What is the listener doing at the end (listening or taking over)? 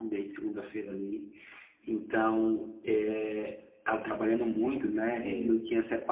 listening